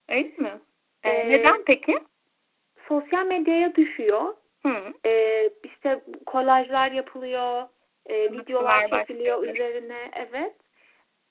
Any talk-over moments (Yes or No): Yes